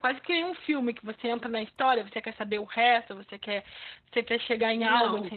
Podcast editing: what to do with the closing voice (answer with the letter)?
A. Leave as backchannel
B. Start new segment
B